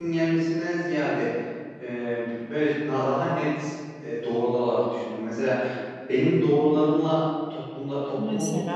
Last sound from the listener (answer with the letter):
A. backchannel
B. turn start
A